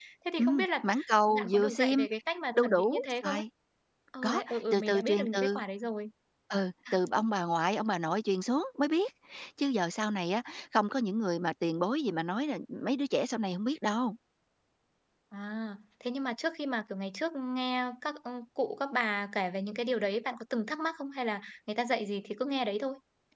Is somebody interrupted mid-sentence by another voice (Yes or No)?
Yes